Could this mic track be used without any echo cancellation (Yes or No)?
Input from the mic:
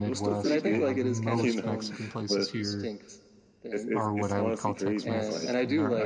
No